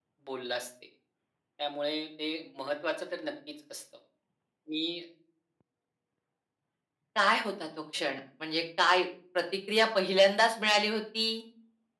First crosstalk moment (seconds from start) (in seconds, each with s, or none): none